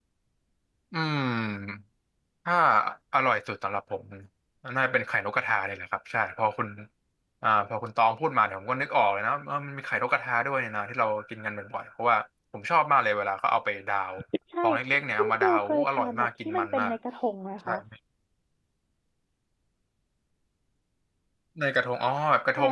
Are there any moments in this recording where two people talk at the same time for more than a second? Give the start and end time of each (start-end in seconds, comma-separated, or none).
15.2-16.9